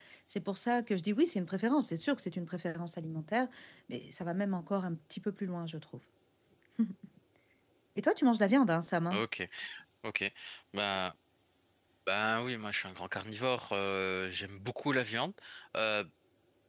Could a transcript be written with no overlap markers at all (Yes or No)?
Yes